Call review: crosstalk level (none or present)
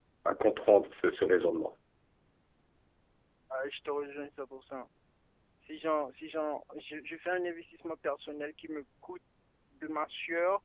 none